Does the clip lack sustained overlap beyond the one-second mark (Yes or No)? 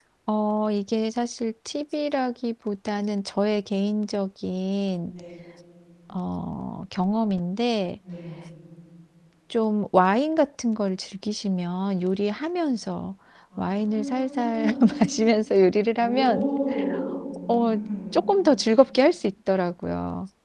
No